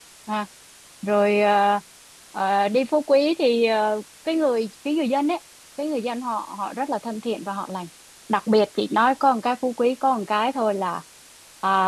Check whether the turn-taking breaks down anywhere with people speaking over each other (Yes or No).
No